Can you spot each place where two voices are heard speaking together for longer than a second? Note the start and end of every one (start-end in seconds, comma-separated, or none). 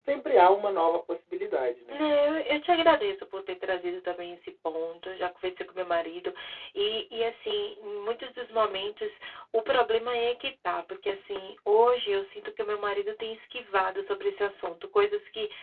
none